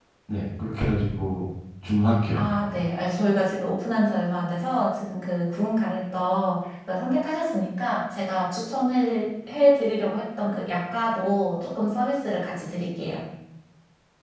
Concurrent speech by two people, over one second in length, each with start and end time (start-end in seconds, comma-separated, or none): none